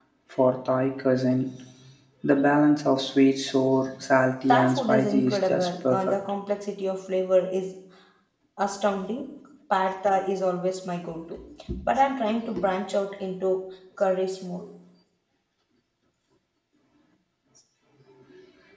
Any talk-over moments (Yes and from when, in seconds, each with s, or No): Yes, from 4.5 s